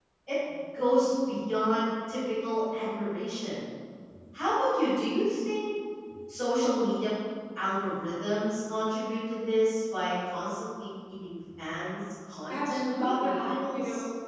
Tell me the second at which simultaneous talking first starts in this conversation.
12 s

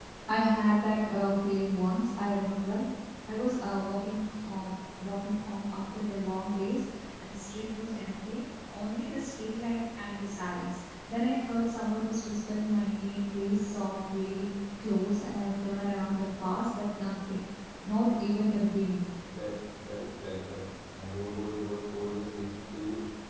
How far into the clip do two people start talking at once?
none

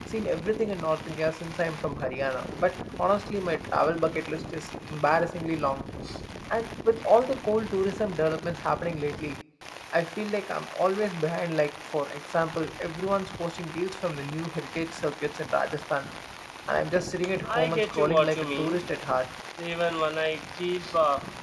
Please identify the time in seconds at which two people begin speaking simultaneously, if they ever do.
18 s

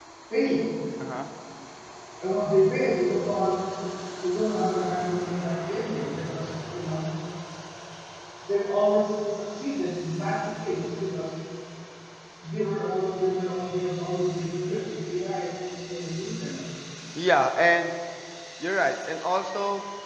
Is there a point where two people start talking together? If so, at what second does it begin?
none

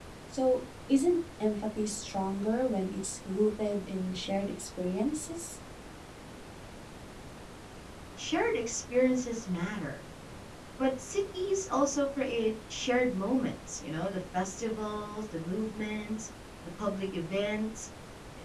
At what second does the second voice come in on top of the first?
none

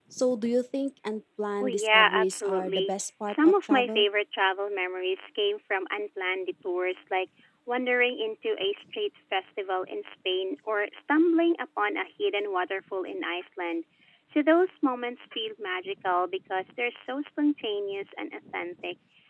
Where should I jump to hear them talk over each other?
2 s

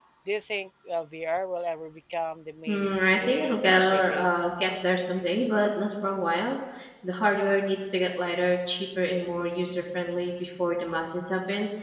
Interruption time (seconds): 3 s

